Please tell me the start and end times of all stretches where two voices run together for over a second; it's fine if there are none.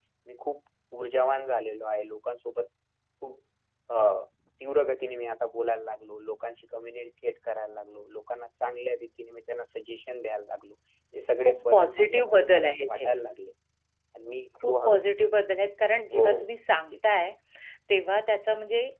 11.4-13.1

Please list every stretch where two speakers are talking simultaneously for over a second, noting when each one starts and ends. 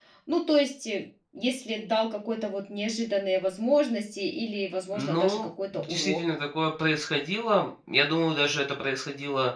4.9-6.2

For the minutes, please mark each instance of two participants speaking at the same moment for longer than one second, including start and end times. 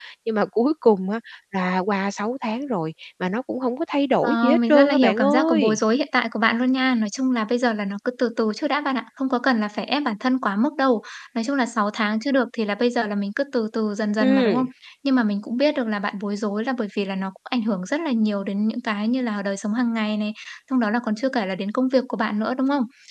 4.2-5.8

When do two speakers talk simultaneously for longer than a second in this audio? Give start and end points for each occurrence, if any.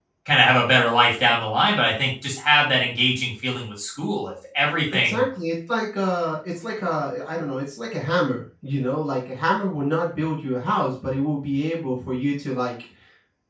none

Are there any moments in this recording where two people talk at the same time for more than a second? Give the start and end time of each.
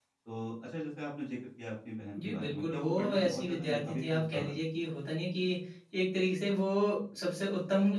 2.2-4.6

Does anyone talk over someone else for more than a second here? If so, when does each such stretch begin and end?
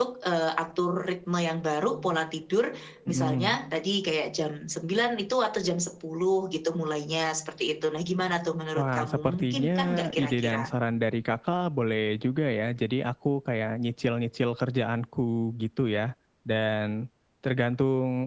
8.8-10.6

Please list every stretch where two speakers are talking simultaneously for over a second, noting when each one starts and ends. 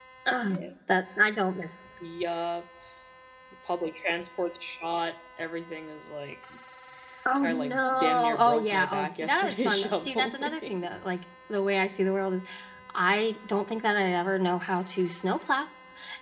7.4-10.8

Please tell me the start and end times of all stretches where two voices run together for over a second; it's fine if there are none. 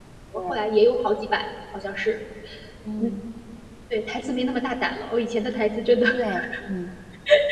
none

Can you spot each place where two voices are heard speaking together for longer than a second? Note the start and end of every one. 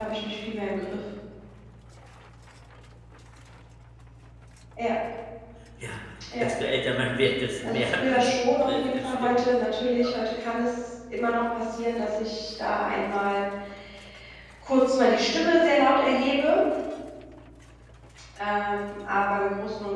7.6-9.4

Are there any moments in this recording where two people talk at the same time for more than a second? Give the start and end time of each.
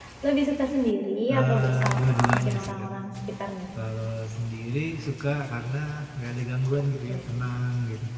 1.3-2.9

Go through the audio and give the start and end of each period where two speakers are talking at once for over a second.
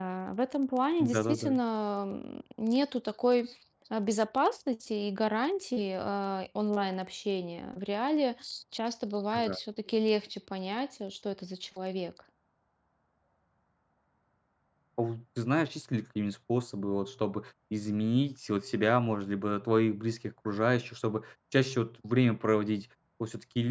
none

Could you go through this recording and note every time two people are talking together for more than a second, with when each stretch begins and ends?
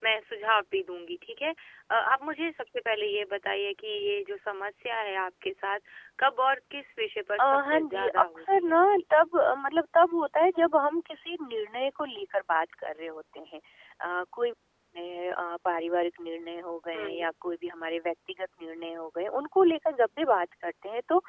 7.4-9.0

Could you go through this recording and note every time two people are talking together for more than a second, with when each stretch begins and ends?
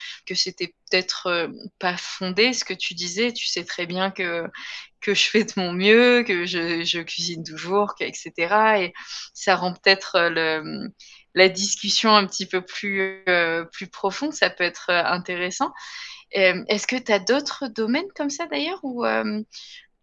none

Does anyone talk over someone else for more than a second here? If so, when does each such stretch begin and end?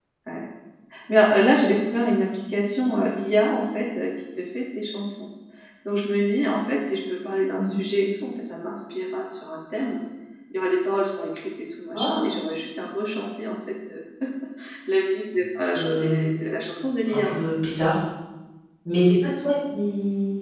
none

